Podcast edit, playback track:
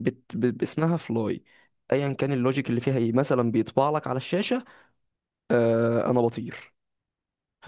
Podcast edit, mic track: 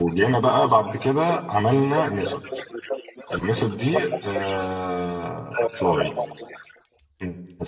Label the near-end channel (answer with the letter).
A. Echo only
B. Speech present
B